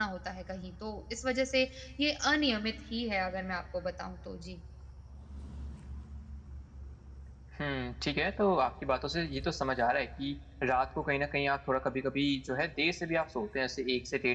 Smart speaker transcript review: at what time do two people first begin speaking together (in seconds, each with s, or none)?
none